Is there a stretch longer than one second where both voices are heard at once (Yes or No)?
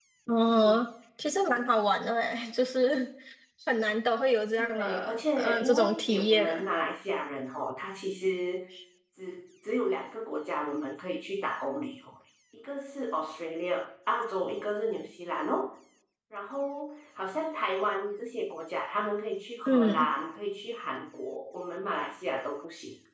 Yes